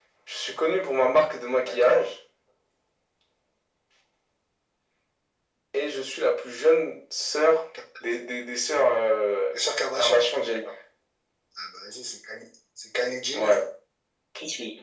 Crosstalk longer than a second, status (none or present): none